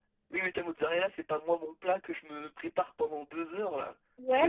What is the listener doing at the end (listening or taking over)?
taking over